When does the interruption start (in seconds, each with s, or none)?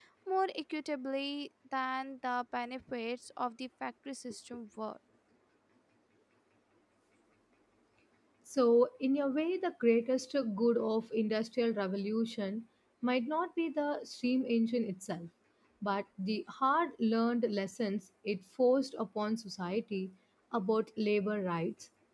none